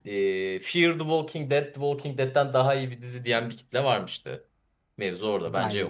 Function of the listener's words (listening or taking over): taking over